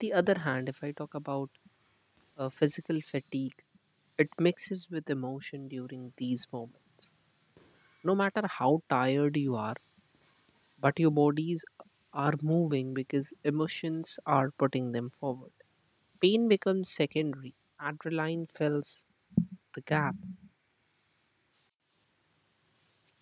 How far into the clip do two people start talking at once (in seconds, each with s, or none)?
none